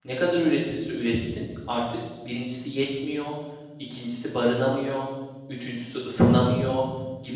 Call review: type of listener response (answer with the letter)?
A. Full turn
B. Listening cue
B